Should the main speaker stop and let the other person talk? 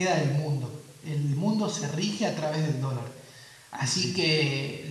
No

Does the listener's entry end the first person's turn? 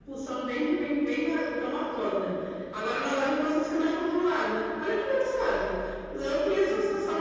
No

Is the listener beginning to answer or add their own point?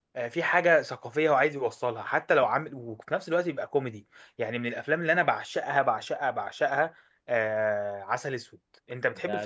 Yes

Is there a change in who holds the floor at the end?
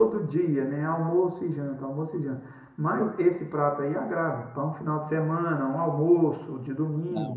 No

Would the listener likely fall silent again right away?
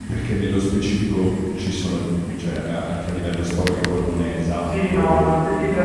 No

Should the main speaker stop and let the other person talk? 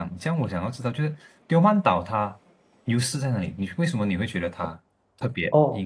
Yes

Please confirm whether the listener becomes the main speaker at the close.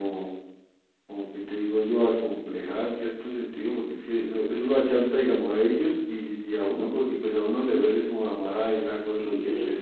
No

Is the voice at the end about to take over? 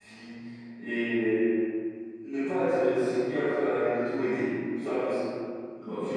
Yes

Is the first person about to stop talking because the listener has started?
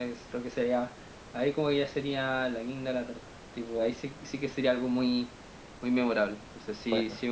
No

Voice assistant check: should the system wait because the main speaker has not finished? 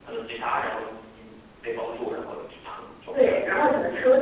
No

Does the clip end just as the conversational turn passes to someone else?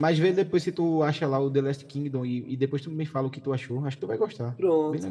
Yes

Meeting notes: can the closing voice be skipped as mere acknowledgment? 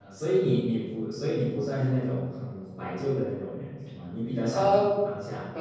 No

